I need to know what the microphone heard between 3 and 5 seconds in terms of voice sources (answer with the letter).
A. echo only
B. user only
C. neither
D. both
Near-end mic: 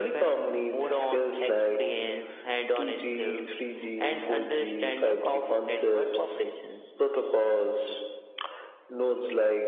A